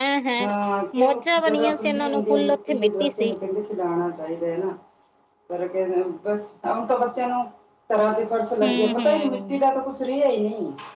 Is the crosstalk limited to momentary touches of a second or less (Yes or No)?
No